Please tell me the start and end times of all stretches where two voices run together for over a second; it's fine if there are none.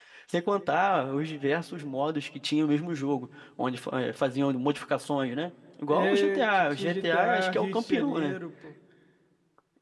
5.9-8.4

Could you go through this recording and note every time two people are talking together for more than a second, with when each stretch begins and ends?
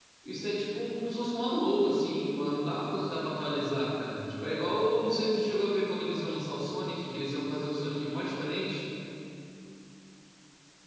none

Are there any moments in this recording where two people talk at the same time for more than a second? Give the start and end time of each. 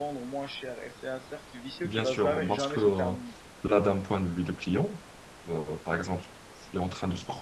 1.8-3.1

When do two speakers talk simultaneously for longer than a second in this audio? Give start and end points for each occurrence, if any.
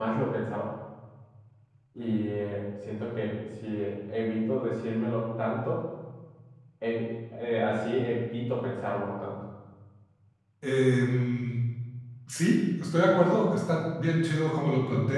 none

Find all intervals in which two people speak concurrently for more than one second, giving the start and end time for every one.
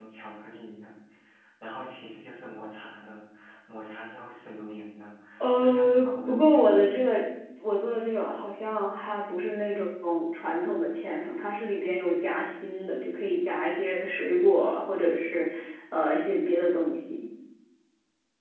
5.6-7.2

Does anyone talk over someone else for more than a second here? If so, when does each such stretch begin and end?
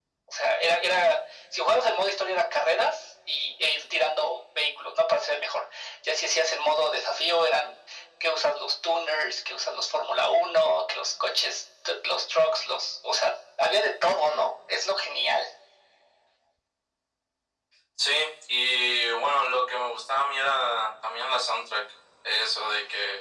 none

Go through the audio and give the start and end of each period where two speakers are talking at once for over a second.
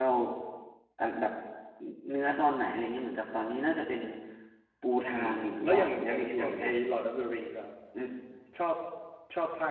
5.1-6.7

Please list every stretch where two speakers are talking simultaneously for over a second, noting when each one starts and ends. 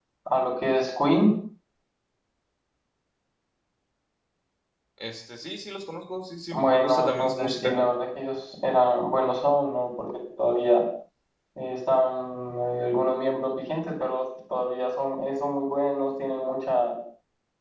6.5-7.7

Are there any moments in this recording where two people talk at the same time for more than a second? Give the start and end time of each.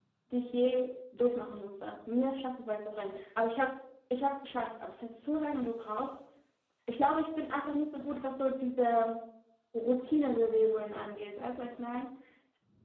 none

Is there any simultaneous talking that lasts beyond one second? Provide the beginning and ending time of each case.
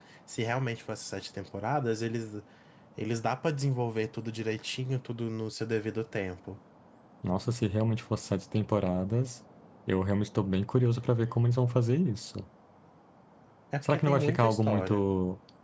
13.8-15.0

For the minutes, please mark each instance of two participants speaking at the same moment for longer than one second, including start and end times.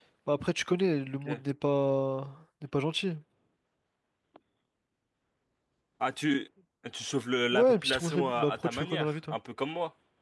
7.5-9.4

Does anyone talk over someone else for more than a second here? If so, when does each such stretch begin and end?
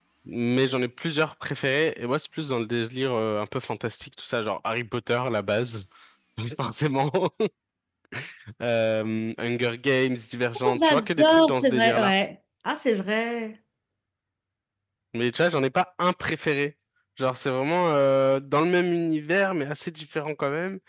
10.7-12.1

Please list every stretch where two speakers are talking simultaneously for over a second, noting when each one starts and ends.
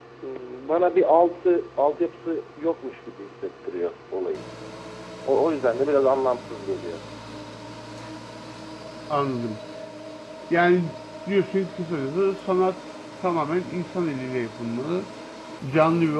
none

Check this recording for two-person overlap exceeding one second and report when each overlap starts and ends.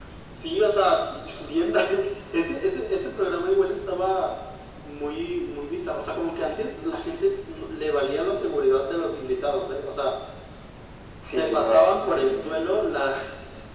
11.3-12.6

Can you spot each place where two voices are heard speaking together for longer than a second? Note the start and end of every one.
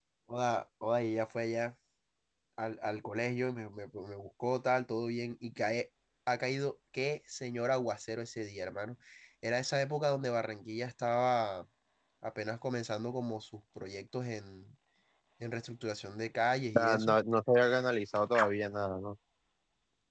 none

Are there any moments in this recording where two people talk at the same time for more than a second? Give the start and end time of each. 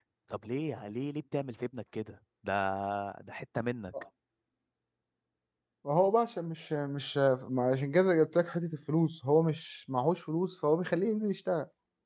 none

